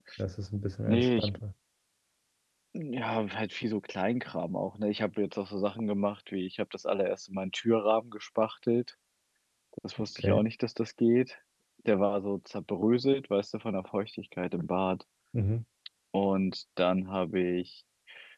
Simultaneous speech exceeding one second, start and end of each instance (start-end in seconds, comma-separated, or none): none